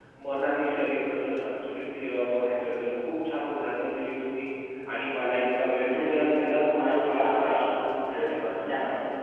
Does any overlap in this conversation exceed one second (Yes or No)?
Yes